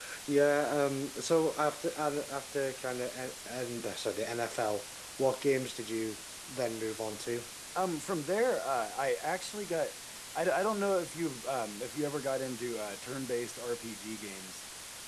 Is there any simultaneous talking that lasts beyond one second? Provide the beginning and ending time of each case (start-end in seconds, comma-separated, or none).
none